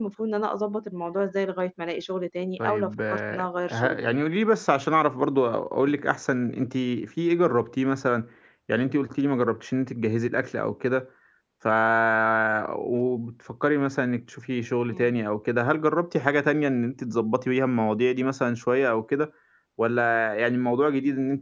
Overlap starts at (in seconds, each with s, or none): 2.6 s